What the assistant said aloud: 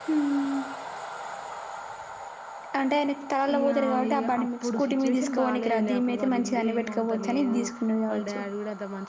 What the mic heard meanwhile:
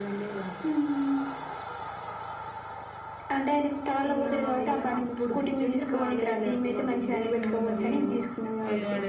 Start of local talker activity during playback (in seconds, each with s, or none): 7.4 s